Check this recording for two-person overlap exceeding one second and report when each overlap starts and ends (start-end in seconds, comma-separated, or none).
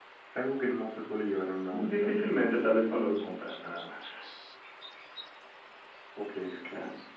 none